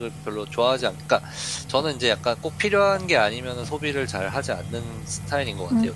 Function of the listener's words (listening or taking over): taking over